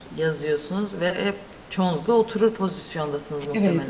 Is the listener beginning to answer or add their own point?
Yes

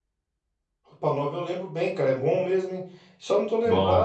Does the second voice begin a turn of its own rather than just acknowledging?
No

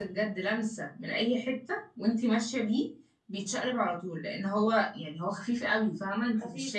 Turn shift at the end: Yes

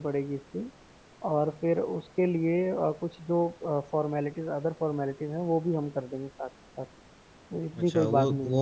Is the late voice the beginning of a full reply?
Yes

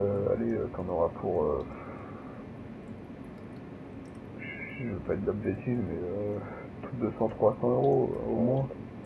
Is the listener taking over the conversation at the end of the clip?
Yes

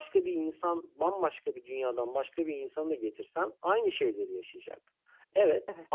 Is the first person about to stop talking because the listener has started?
No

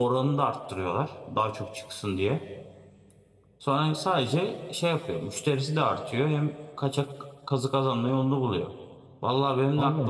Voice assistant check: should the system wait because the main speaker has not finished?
Yes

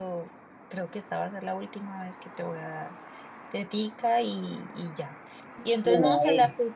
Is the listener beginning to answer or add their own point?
No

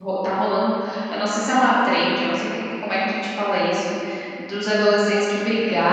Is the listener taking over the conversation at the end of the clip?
No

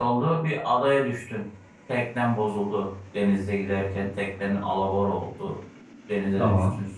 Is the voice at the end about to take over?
No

